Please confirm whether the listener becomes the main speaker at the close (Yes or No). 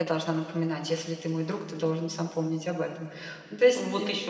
Yes